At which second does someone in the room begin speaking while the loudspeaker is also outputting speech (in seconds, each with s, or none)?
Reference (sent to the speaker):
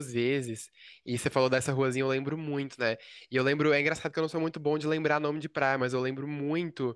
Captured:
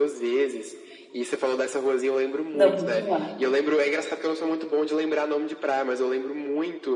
2.5 s